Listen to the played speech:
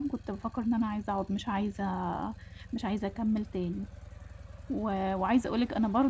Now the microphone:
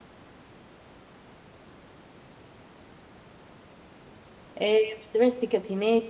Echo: none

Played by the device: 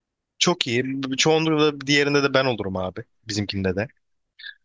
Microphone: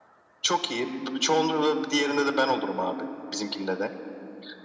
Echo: present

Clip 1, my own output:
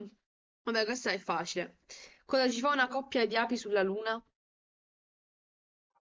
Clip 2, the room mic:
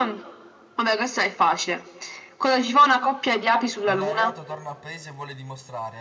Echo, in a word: present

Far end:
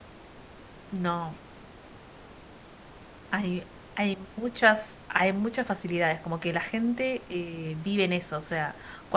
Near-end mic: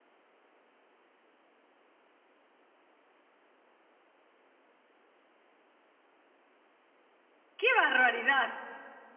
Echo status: none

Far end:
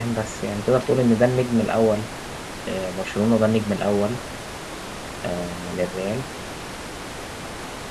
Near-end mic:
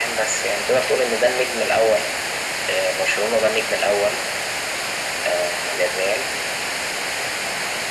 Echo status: present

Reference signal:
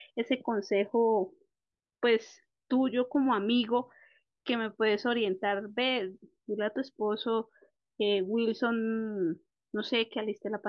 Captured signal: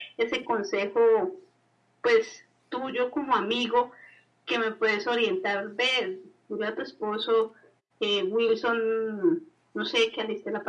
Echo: present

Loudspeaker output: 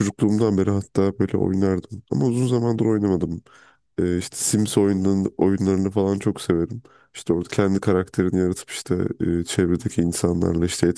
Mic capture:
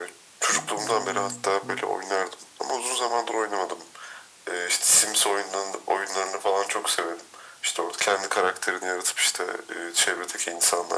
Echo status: present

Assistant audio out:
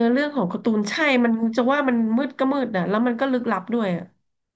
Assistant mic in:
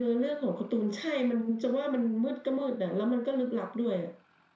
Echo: present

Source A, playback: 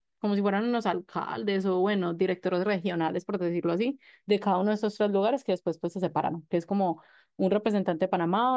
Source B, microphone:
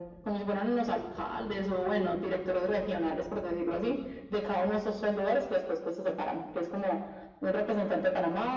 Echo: present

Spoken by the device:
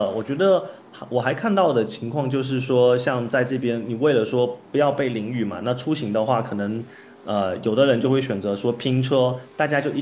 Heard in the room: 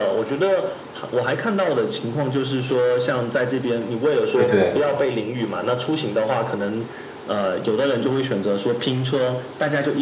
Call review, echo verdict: present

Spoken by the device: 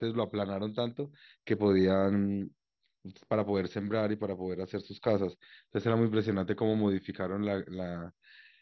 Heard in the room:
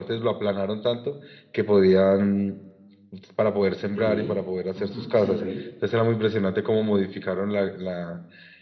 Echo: present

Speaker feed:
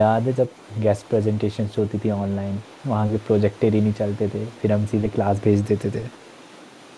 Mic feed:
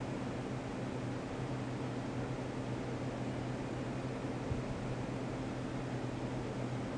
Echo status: none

